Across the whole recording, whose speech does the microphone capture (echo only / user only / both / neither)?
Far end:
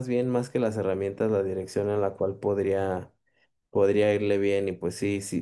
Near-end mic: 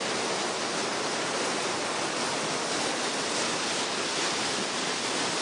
neither